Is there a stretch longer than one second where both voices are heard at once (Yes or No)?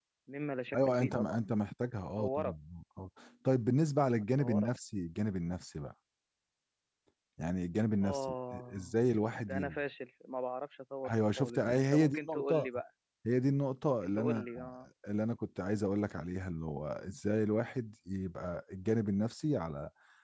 Yes